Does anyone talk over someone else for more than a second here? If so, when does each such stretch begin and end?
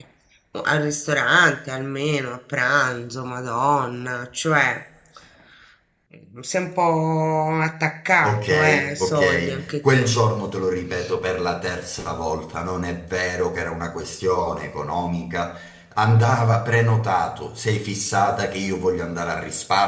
8.2-10.1

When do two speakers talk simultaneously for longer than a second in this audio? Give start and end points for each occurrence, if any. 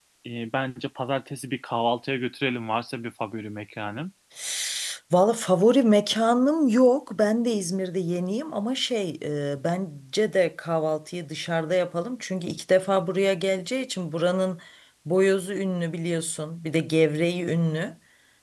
none

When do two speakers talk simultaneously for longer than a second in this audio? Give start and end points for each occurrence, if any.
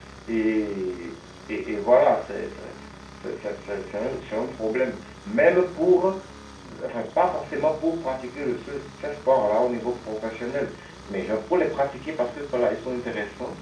none

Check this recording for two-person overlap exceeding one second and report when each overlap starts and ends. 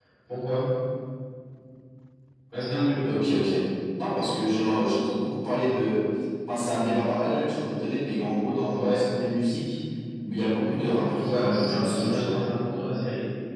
11.2-12.4

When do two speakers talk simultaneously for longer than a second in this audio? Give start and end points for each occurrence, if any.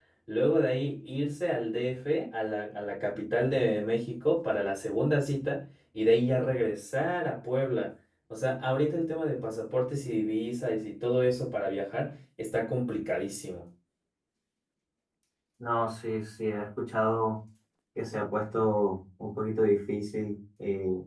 none

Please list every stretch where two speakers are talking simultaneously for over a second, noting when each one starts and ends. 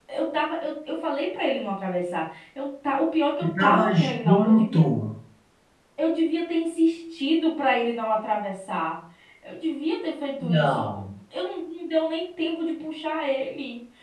3.6-4.8

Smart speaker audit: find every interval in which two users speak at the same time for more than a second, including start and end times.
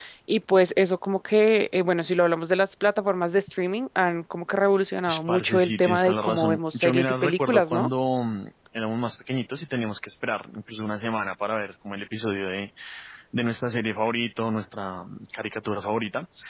5.1-7.9

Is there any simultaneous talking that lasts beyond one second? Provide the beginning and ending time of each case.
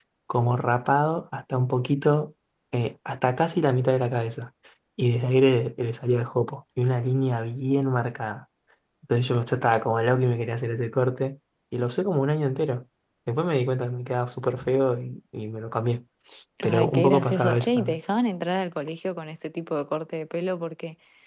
16.6-18.0

